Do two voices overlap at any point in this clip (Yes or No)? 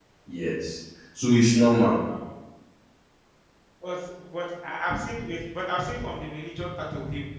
No